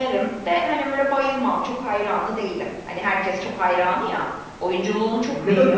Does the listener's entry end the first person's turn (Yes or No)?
Yes